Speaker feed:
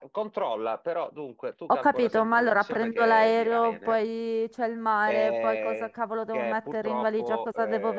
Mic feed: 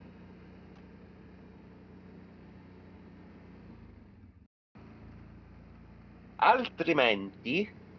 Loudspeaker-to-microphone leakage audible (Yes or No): No